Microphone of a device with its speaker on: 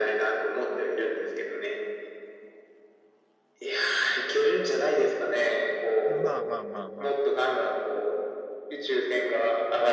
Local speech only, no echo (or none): まあまあまあまあ。